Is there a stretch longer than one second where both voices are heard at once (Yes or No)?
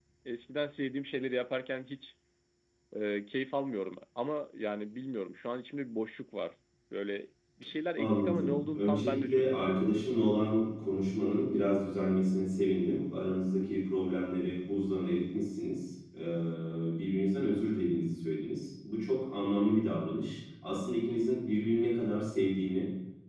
Yes